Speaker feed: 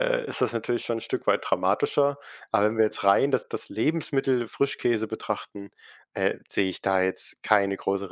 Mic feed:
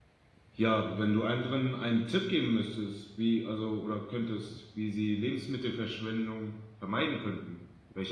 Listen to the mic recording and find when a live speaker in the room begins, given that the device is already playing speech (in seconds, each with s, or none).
0.5 s